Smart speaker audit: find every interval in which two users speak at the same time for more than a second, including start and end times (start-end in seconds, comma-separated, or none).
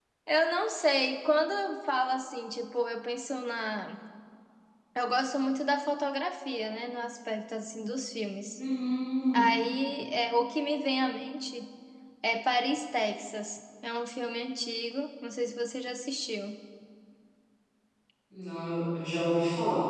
none